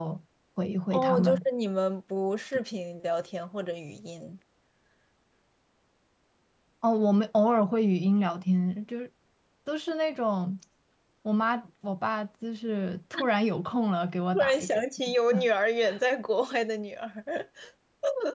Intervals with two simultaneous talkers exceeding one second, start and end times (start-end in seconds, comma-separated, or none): none